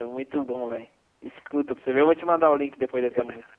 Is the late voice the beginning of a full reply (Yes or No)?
Yes